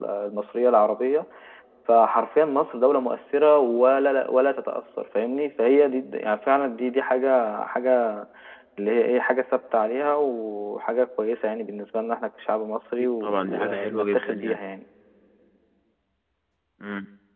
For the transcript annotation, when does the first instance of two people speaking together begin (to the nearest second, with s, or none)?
13 s